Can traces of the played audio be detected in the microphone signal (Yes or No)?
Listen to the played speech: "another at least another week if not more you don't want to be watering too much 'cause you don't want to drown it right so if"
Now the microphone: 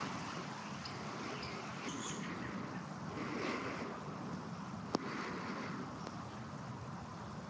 No